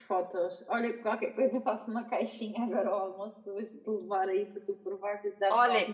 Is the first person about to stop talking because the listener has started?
Yes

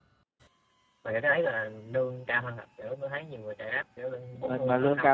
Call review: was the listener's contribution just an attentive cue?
No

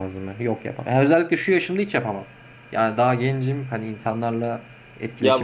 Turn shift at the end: Yes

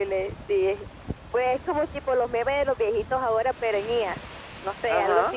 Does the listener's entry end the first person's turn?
Yes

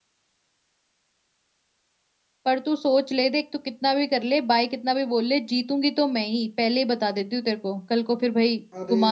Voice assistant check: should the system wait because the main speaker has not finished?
No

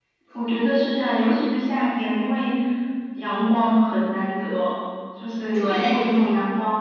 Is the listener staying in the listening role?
Yes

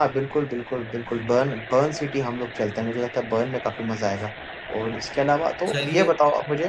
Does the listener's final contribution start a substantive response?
No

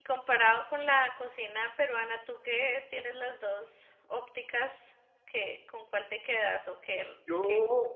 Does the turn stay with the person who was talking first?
No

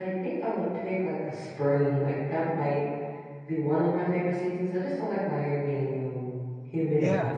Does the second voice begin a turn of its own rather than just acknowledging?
Yes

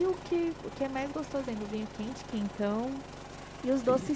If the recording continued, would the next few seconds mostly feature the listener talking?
No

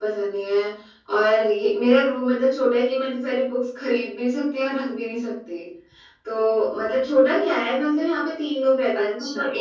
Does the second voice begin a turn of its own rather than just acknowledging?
No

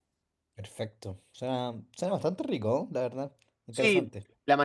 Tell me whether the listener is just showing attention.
No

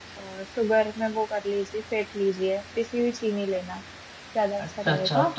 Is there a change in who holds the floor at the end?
Yes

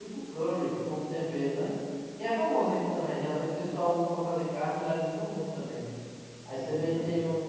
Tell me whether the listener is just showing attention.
Yes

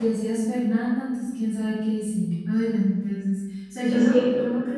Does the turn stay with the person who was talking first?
Yes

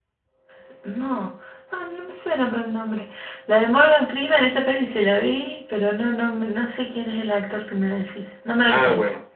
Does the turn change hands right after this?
Yes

